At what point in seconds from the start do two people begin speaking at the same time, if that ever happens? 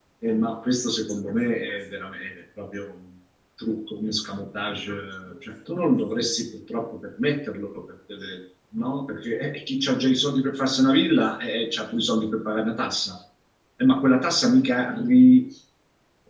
none

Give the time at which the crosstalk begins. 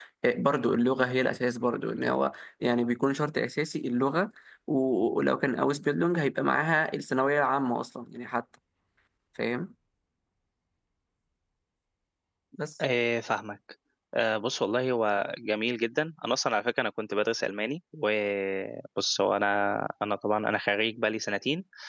none

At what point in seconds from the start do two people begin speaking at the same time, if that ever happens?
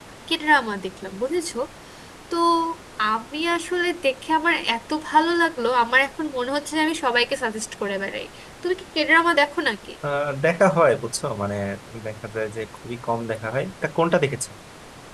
none

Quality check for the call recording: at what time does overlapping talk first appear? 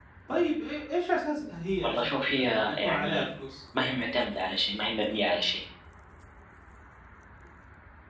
1.8 s

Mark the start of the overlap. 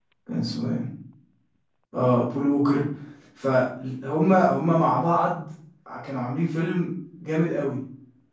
none

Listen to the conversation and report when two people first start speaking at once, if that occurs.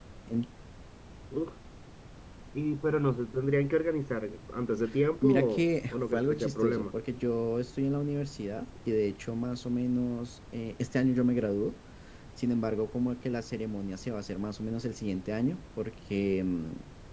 5.2 s

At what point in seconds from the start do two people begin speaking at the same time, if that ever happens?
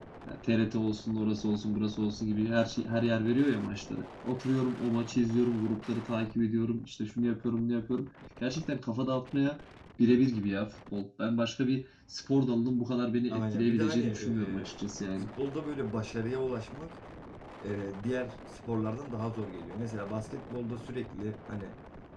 13.3 s

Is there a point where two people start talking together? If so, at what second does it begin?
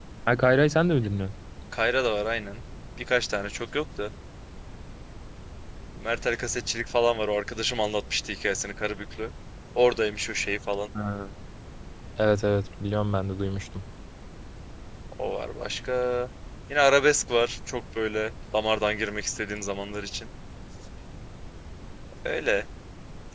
none

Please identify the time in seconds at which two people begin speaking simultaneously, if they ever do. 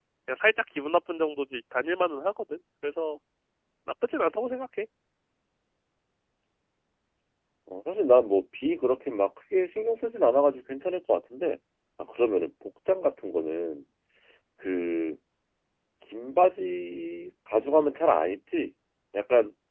none

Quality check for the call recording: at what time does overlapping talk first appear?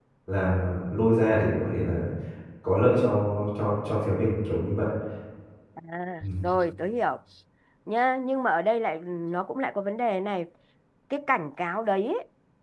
none

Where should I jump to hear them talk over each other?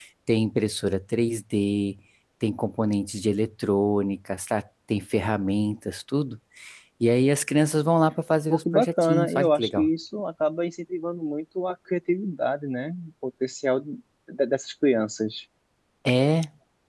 8.5 s

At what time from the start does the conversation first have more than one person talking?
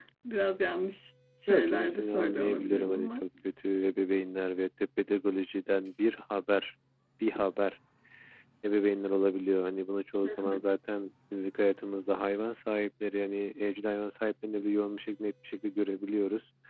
1.5 s

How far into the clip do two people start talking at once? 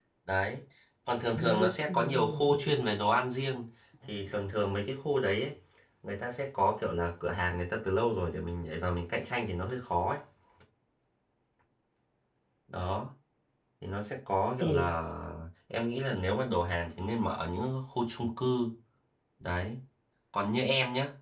1.4 s

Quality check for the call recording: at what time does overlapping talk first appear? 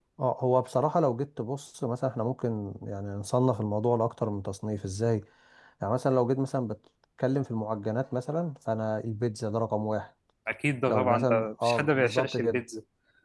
10.9 s

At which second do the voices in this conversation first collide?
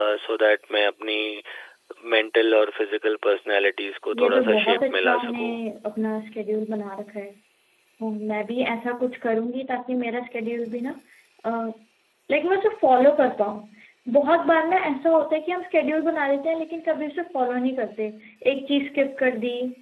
4.1 s

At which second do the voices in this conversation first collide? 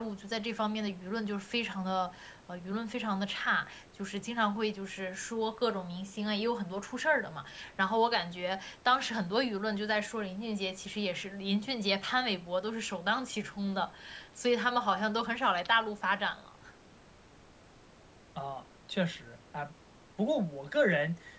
none

